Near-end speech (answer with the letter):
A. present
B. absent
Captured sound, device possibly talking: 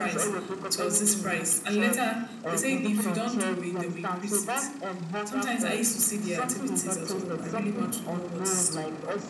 B